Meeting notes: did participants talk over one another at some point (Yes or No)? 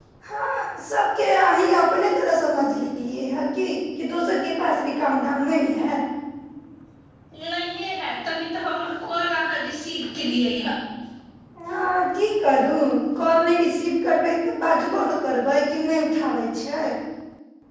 No